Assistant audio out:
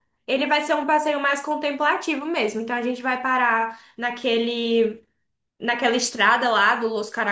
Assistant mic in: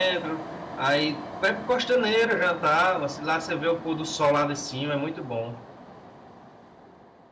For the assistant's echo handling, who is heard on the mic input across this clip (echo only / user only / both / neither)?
user only